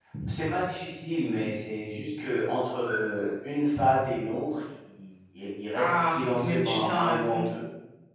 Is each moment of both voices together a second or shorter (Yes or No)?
No